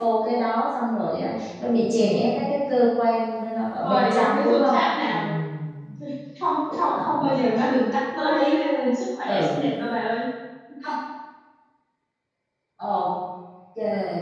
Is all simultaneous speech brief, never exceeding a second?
No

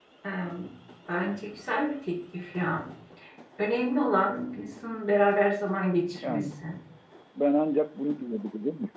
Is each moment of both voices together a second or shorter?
Yes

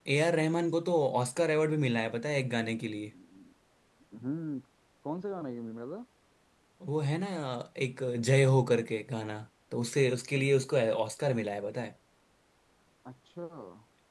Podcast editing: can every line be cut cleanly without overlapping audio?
Yes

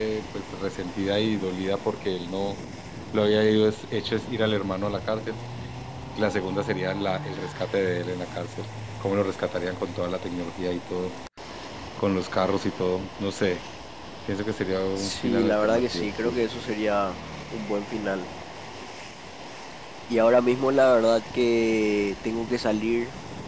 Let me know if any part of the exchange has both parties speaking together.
Yes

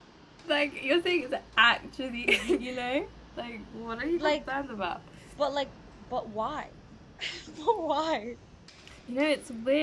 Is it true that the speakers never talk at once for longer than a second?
Yes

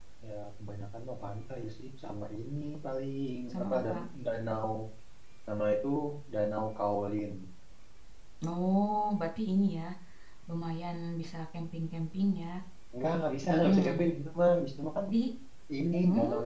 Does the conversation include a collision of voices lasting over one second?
No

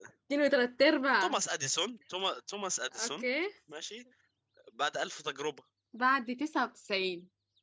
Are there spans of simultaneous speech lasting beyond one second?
No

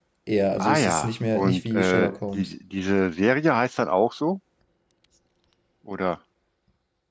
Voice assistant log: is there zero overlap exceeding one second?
No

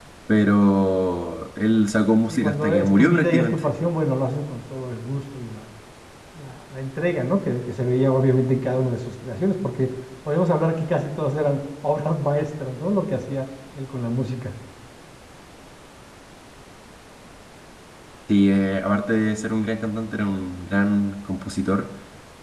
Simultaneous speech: Yes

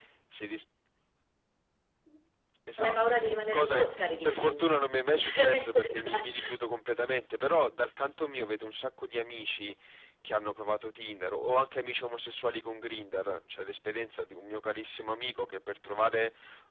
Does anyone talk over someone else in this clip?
Yes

